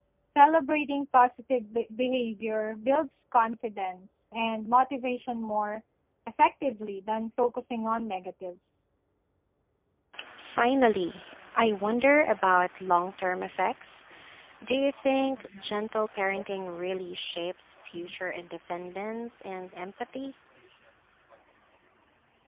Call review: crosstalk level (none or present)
none